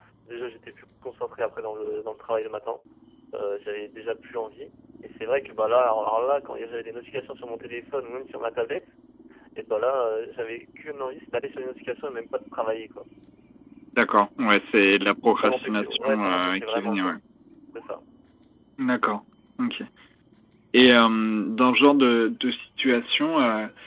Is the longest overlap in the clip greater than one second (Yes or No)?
Yes